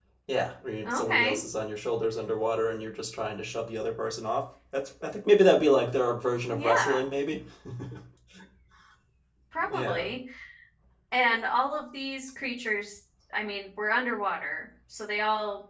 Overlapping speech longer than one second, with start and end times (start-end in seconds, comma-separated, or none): none